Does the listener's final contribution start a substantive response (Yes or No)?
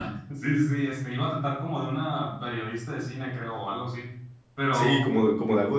Yes